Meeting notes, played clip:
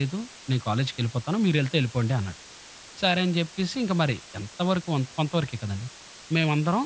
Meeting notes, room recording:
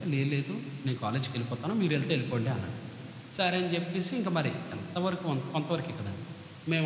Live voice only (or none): none